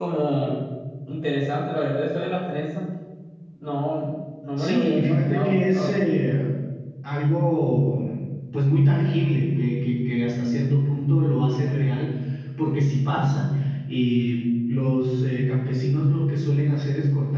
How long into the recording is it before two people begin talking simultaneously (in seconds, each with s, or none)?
4.5 s